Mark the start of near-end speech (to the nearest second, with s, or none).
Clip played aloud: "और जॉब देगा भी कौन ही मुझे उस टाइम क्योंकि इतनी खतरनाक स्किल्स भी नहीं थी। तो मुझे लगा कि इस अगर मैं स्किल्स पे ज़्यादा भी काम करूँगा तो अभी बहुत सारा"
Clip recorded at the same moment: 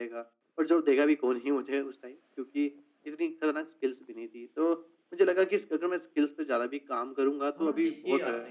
7 s